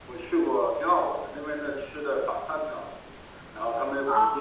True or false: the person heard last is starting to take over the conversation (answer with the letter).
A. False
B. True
A